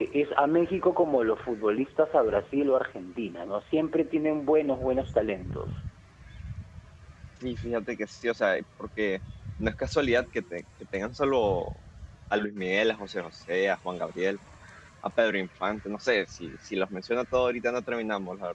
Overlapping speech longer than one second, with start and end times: none

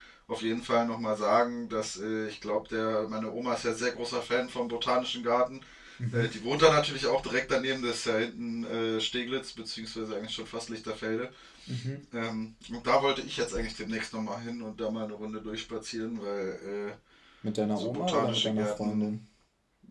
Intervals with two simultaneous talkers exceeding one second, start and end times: 17.8-19.1

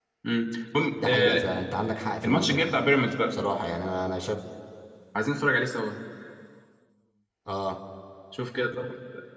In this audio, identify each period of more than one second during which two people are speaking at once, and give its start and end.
none

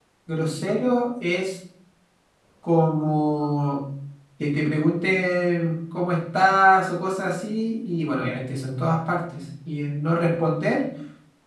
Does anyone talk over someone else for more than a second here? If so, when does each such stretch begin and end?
none

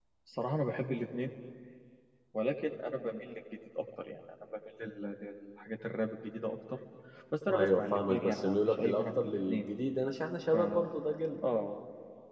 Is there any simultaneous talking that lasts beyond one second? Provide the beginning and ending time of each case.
7.5-9.7

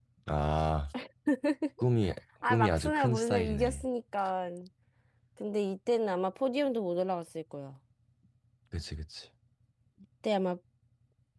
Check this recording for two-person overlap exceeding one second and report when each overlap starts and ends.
2.5-3.9

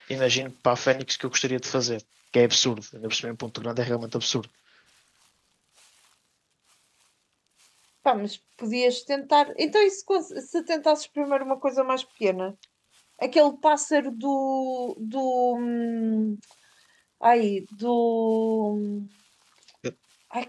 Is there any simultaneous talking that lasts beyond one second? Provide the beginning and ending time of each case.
none

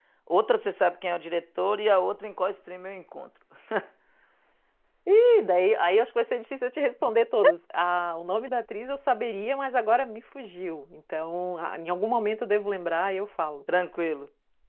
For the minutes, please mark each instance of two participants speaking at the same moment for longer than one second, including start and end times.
none

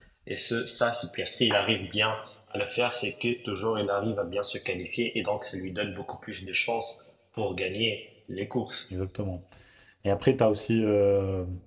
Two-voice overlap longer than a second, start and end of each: none

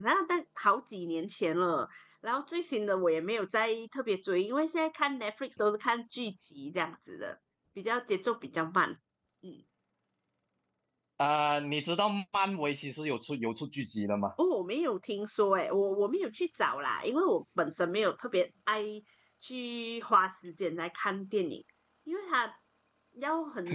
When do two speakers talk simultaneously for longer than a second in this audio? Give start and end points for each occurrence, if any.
none

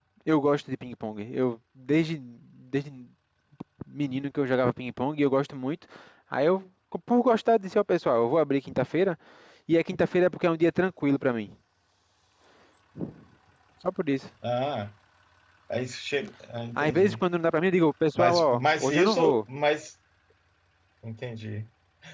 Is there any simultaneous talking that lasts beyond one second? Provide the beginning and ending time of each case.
18.2-19.4

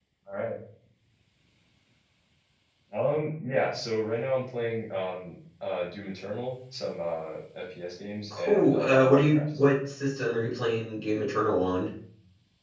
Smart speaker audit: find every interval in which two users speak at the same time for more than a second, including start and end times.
8.4-9.6

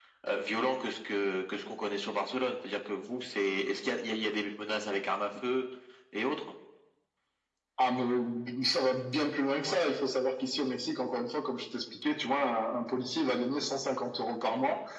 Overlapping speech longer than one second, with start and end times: none

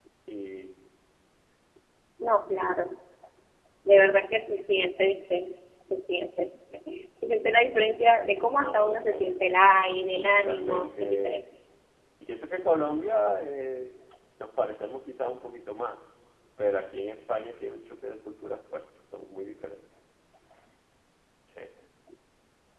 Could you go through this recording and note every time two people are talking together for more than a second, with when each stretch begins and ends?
8.6-11.4

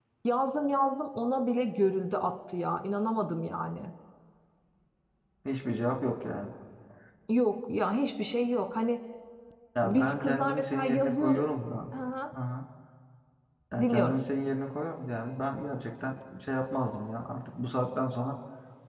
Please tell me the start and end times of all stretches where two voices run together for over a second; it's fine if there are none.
9.8-11.4

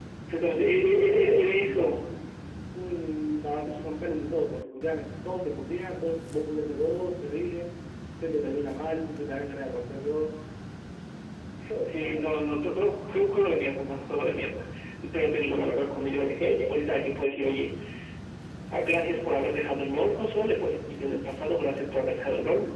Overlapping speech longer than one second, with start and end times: 0.7-2.0

